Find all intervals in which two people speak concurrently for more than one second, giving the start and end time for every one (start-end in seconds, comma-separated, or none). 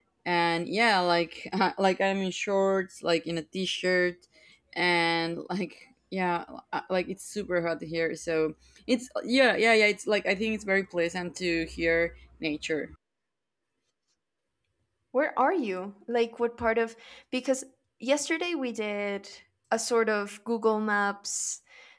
none